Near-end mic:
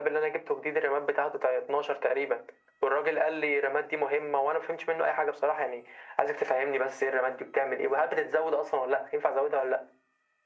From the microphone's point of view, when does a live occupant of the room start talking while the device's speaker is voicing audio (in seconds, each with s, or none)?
none